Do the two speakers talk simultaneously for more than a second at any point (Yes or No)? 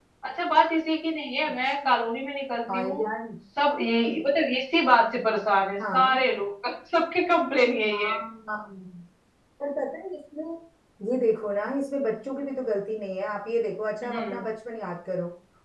No